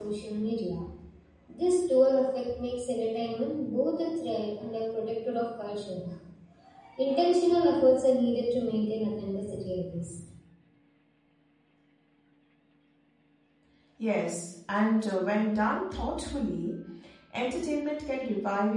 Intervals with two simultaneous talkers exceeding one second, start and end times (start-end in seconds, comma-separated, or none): none